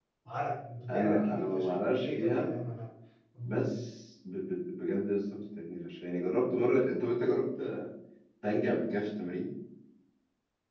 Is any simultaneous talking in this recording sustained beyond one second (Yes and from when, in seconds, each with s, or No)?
Yes, from 0.9 s